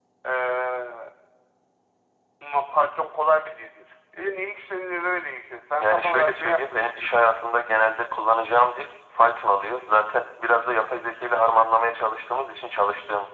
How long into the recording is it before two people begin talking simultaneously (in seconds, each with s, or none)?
5.8 s